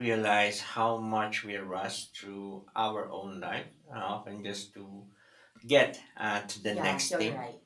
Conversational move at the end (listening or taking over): taking over